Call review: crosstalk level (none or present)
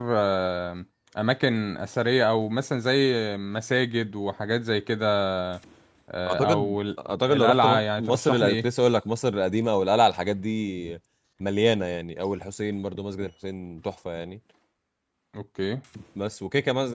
present